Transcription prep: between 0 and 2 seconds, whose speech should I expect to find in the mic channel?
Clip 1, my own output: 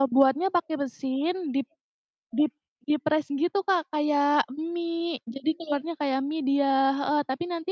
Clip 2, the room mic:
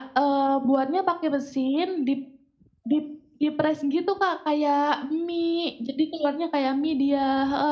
echo only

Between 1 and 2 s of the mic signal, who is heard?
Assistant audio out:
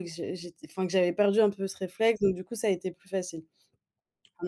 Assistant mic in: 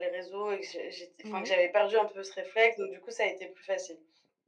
both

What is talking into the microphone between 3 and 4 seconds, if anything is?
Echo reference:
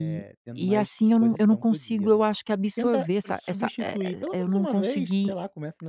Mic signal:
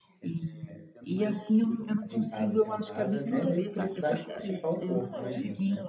both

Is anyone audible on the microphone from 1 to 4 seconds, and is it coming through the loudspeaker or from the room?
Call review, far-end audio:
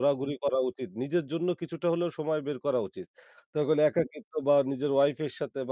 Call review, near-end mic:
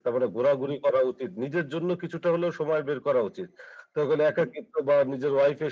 echo only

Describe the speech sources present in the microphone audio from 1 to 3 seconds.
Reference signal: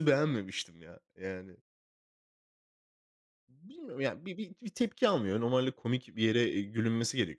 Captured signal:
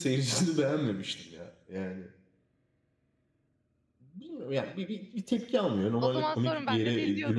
echo only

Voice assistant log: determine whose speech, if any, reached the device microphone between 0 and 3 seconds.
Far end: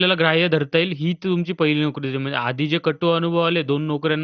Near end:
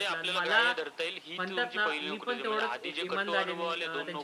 both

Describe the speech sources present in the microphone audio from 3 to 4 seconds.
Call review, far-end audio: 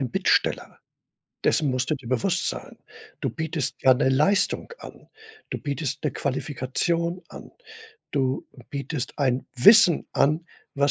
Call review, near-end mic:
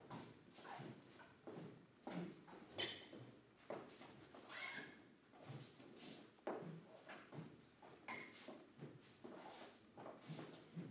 neither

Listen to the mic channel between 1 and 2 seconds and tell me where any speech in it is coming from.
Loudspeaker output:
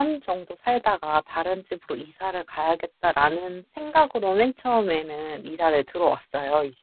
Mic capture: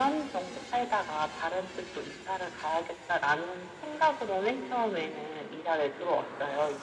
echo only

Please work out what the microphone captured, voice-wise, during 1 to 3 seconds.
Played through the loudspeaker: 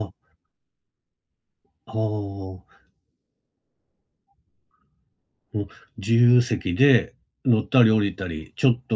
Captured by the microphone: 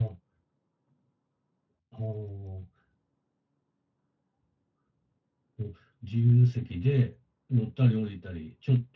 echo only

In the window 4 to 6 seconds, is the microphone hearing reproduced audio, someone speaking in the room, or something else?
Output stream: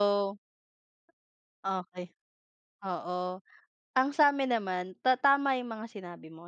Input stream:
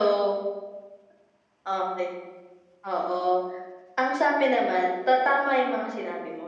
echo only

